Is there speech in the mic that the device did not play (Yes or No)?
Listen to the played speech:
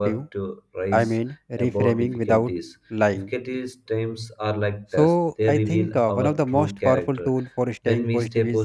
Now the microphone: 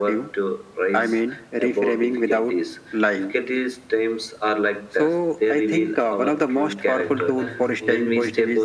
Yes